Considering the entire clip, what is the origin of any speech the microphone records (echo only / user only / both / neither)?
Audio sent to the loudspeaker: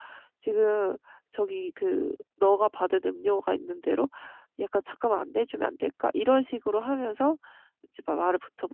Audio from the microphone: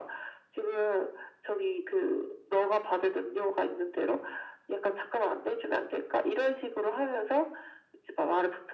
echo only